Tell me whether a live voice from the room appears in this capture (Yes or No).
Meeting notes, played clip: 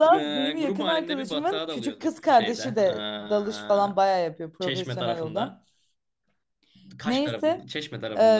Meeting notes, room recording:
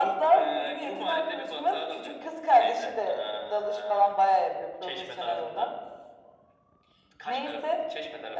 No